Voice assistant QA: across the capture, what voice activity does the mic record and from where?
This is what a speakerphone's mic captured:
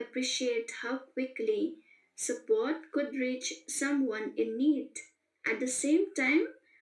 echo only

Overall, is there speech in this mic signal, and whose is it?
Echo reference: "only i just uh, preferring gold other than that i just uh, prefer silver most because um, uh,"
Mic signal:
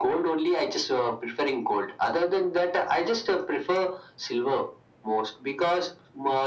echo only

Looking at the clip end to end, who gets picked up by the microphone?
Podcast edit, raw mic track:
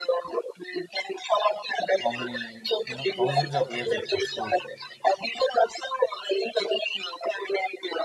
both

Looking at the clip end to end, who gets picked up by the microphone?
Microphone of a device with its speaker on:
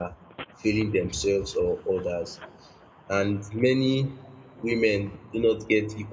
user only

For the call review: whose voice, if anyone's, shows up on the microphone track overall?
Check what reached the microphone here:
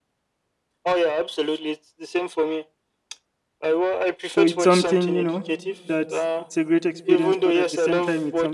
both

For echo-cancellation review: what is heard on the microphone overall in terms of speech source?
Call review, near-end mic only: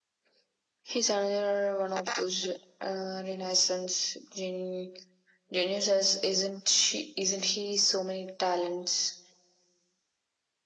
echo only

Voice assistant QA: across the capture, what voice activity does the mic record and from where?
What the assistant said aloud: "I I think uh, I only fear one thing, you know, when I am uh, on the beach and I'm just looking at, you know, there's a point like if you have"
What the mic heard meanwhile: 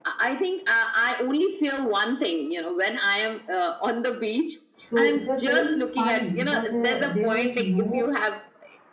both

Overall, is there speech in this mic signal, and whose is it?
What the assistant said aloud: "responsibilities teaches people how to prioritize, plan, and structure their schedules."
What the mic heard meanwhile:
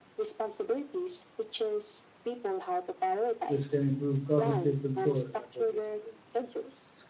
both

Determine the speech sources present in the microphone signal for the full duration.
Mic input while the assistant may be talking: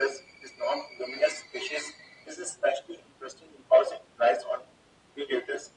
echo only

